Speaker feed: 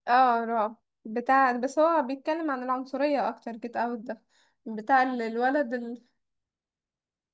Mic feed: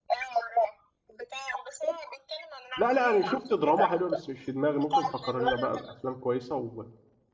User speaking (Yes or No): Yes